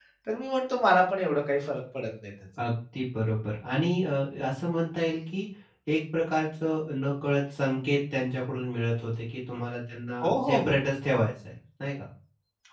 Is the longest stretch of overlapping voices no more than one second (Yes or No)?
Yes